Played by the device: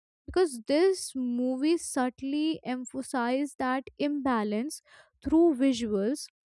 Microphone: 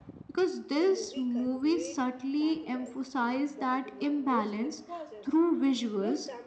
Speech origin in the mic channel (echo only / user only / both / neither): both